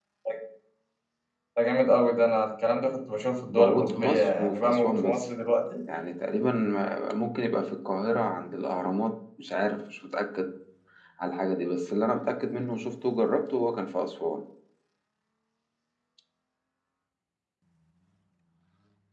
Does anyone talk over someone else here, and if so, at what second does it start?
3.6 s

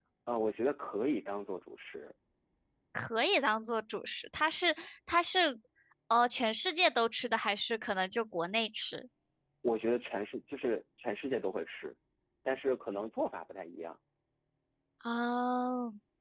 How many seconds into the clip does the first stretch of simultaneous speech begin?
none

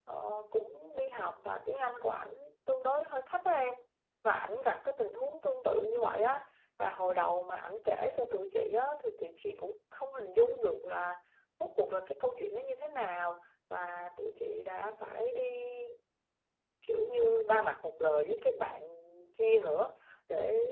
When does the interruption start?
none

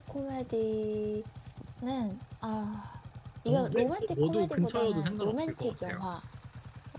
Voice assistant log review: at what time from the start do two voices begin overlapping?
3.5 s

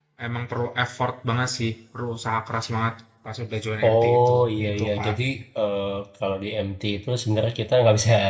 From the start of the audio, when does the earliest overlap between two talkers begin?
3.8 s

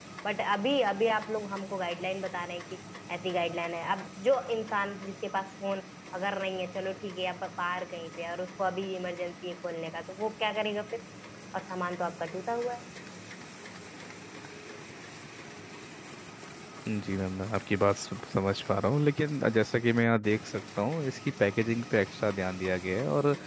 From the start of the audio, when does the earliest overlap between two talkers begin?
none

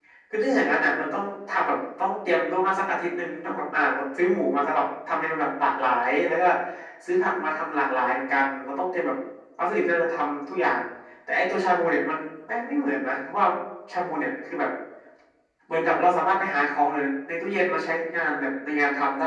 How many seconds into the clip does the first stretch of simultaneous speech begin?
none

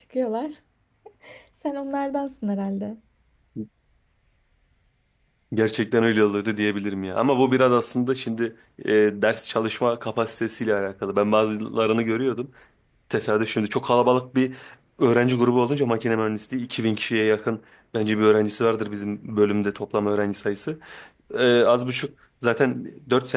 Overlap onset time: none

